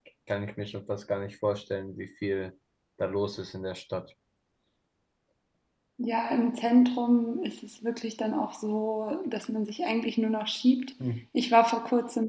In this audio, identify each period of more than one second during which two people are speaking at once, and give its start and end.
none

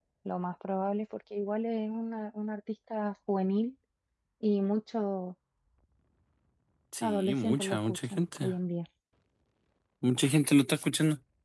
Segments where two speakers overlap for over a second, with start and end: 7.0-8.5

